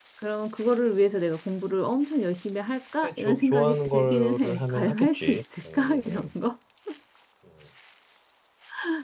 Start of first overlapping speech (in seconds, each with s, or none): 3.0 s